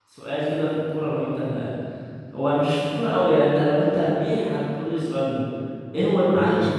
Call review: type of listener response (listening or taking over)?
listening